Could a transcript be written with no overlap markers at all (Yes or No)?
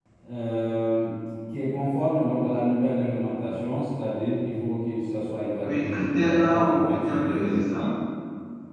No